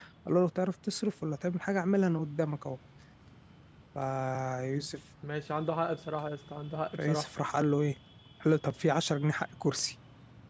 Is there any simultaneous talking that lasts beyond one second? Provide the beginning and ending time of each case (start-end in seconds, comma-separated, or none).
none